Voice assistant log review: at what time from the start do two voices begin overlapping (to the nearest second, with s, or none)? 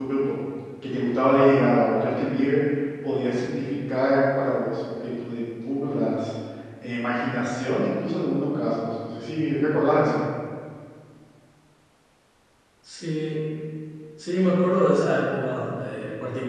none